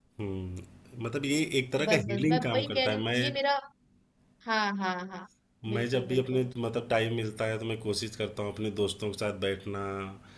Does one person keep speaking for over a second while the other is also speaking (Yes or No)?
Yes